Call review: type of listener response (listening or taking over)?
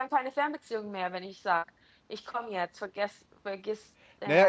taking over